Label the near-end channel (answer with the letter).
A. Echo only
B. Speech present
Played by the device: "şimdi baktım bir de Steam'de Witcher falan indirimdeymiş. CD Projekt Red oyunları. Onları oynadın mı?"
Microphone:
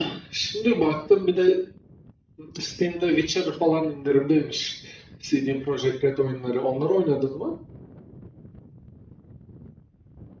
A